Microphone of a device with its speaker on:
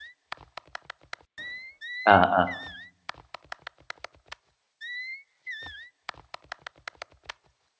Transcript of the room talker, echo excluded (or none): À, à.